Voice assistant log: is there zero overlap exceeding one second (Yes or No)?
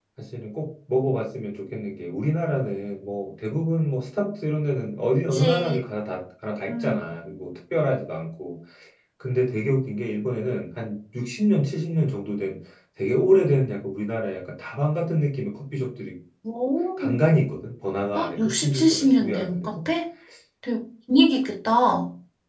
No